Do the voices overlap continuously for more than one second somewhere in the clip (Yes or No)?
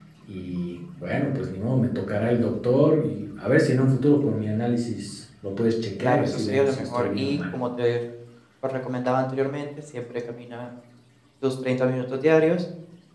Yes